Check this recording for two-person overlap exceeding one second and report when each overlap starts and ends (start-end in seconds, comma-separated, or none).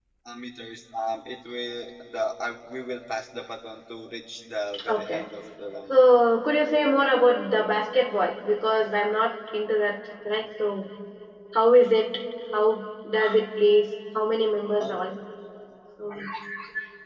none